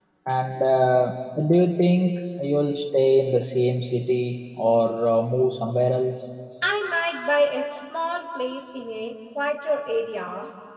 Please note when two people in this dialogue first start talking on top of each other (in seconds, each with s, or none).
none